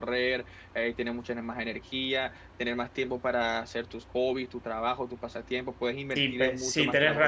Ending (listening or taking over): taking over